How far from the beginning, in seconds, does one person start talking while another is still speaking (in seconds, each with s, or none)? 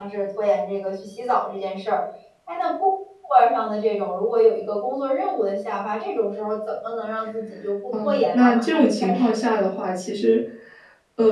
7.9 s